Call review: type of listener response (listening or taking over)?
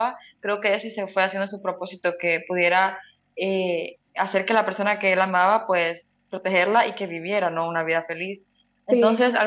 listening